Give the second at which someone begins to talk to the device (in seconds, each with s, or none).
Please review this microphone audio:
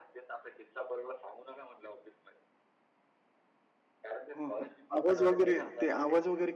4.4 s